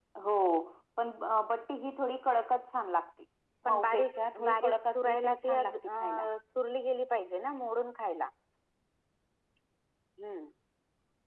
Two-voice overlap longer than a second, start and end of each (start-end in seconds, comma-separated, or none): 3.7-5.7